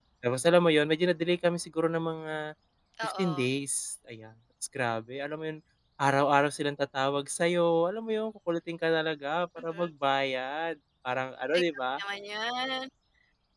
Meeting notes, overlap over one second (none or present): none